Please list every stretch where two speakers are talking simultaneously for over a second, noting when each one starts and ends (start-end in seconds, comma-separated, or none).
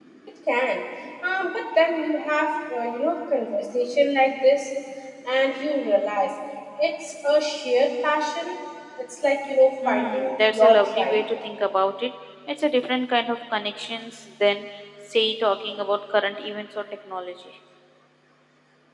9.8-11.2